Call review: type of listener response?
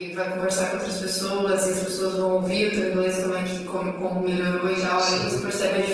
listening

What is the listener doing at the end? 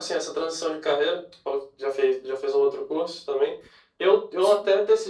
listening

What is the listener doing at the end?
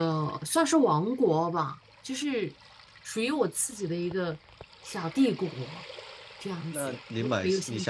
taking over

